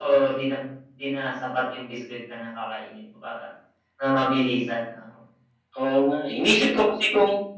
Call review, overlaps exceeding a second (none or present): none